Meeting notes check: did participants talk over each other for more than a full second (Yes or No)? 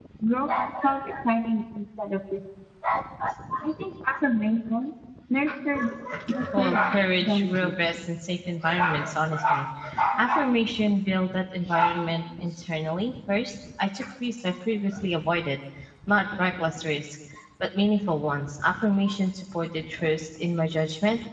Yes